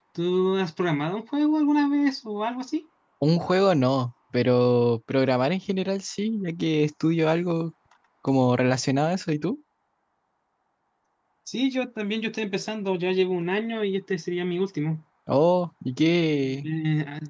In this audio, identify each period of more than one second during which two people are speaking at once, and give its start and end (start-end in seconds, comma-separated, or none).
none